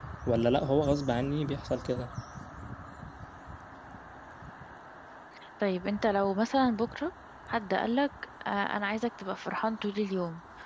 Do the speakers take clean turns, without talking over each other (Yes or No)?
Yes